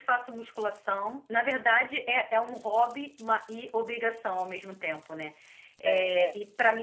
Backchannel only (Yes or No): Yes